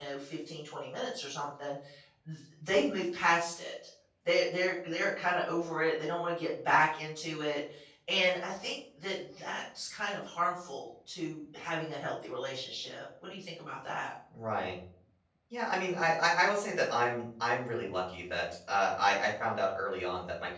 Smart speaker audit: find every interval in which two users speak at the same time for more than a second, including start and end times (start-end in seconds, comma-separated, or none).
none